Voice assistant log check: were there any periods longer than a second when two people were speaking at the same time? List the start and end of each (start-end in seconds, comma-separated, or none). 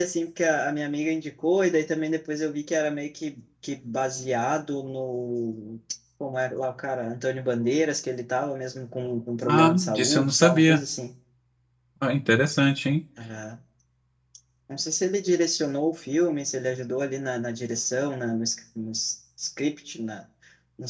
9.4-10.8